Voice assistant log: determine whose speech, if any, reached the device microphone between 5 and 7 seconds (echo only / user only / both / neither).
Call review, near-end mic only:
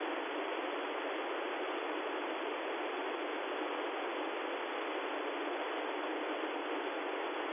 neither